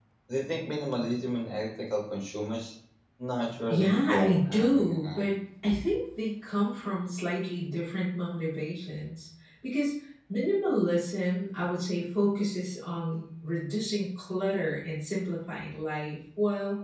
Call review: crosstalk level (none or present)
present